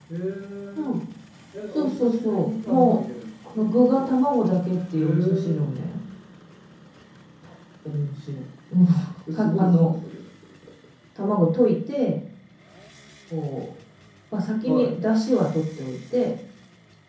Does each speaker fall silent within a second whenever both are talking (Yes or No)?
No